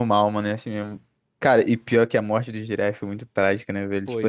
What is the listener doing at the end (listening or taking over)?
listening